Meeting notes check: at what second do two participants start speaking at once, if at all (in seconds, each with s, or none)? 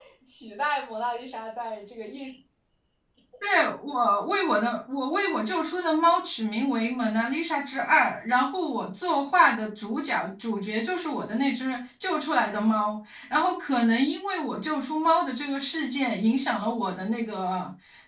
none